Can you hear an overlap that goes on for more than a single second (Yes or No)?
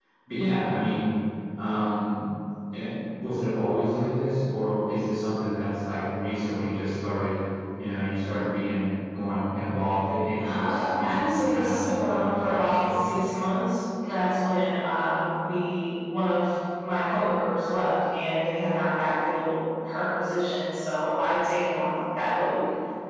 Yes